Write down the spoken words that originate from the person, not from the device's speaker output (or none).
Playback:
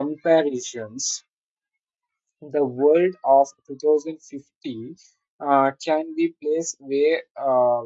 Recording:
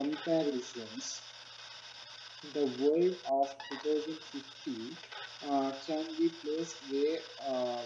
none